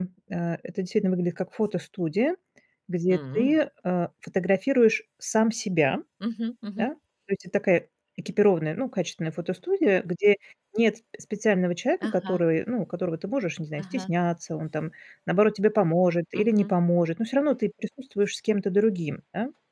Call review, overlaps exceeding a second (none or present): none